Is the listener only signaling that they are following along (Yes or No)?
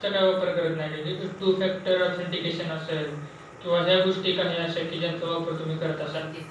No